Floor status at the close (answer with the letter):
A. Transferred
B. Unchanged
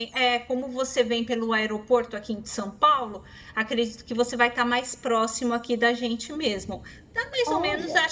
B